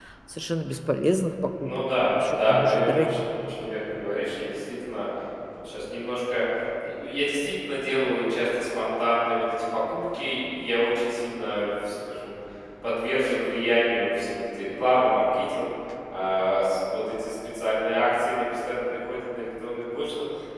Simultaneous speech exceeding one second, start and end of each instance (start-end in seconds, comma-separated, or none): 1.6-3.2